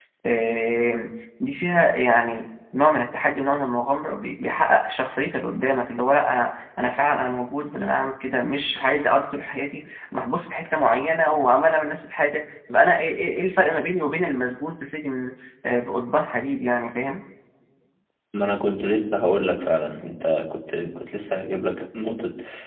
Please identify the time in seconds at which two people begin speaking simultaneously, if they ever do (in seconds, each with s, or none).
none